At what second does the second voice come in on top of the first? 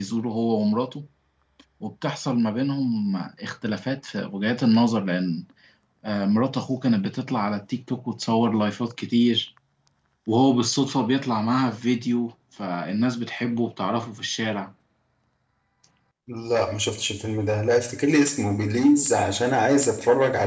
none

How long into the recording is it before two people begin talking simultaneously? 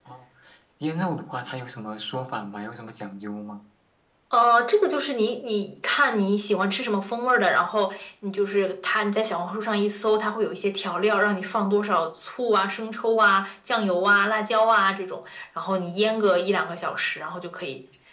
none

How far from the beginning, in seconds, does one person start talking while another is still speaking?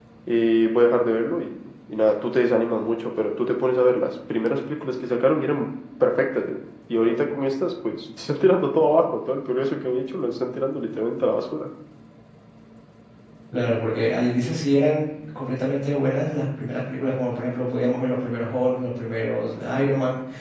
none

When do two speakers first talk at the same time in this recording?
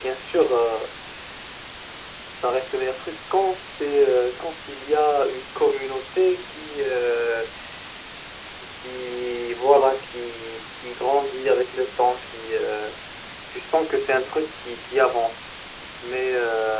none

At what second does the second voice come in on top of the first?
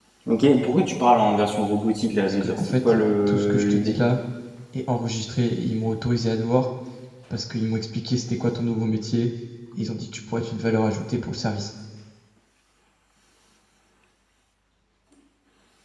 2.4 s

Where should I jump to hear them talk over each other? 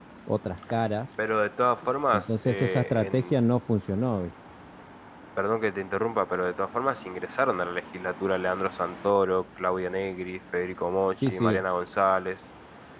2.1 s

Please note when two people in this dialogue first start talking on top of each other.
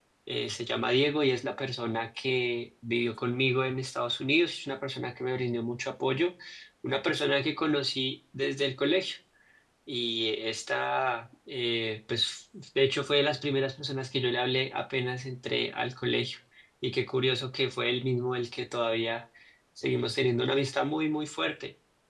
none

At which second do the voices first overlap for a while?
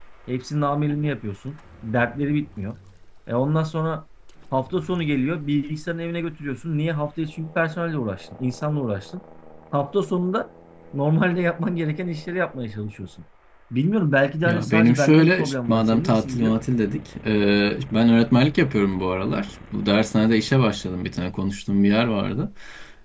14.4 s

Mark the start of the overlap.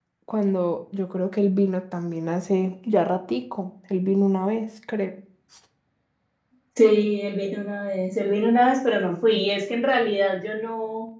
none

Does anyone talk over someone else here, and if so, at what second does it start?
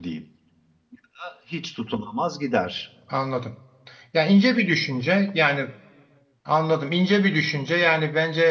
none

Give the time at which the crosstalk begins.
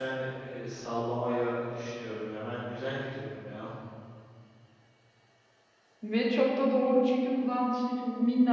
none

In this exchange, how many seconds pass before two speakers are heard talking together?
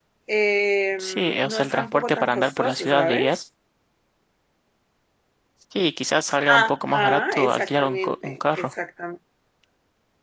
1.0 s

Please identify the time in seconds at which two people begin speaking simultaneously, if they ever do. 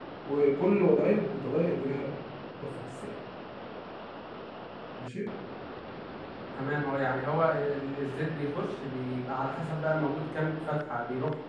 none

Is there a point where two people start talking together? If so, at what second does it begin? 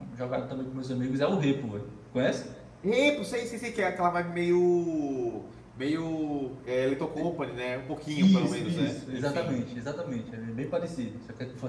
8.2 s

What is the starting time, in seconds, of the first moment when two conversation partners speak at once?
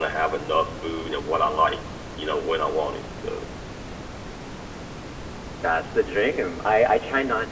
none

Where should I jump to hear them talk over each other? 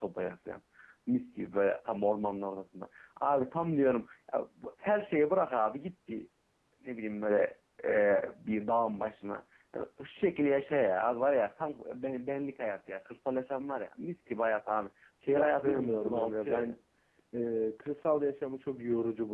15.3 s

